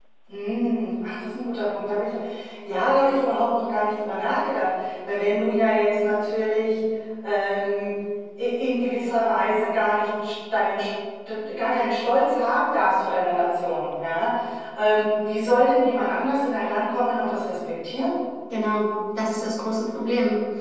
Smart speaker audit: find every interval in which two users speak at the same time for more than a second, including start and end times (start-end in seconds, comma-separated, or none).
none